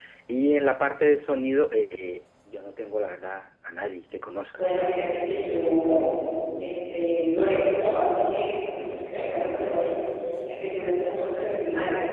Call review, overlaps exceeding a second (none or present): none